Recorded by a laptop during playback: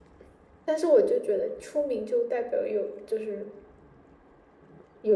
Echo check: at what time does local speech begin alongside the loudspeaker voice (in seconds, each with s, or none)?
none